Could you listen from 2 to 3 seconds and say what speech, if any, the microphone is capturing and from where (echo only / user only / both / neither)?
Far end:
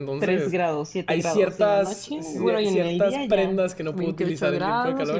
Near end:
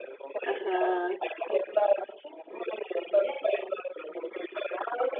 echo only